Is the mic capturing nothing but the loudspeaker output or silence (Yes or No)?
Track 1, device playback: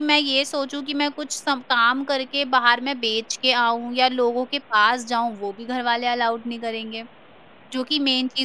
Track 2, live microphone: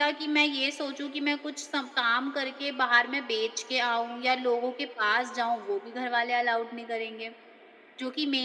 Yes